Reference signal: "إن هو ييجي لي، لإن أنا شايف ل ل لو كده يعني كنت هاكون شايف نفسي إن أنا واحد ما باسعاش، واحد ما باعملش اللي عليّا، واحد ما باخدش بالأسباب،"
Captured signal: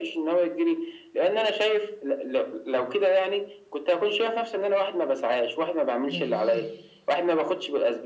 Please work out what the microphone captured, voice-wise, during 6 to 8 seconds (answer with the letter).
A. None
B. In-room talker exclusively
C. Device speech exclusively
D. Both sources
D